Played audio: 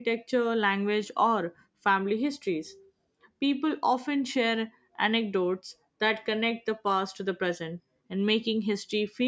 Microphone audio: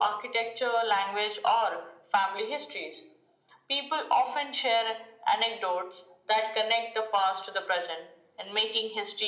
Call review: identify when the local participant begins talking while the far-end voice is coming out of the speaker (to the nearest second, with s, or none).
none